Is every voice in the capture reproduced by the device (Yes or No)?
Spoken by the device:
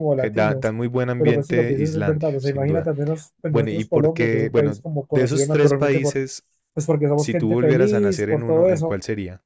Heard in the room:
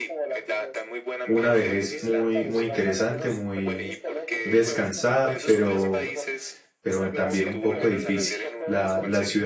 No